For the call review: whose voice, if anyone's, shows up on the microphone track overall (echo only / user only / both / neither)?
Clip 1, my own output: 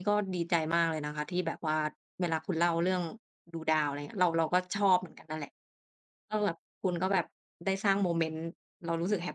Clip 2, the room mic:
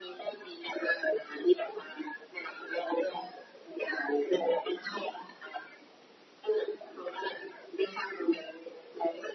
echo only